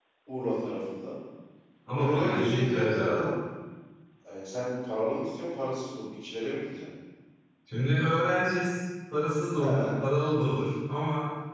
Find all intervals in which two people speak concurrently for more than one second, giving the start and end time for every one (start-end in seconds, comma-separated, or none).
2.0-3.3